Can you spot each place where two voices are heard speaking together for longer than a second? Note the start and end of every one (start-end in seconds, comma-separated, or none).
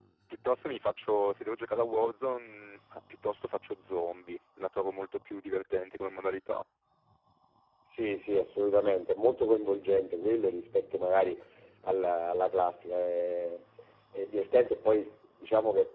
none